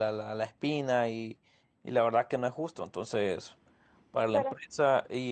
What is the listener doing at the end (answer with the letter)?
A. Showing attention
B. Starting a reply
A